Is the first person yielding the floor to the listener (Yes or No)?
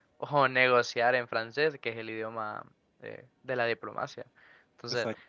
No